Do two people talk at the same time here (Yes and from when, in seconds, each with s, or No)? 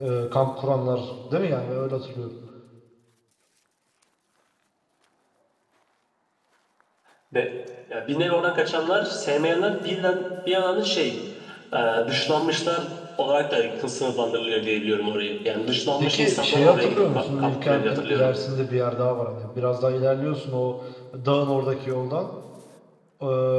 Yes, from 16.0 s